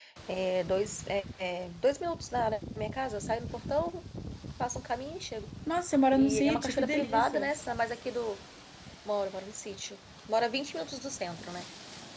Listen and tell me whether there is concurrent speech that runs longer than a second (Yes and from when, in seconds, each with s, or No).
Yes, from 6.2 s